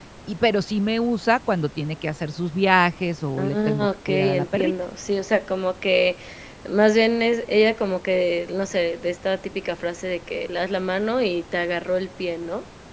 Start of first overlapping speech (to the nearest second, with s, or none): 3 s